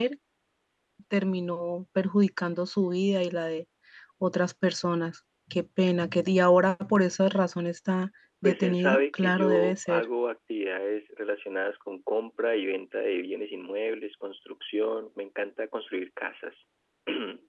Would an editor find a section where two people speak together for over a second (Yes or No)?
Yes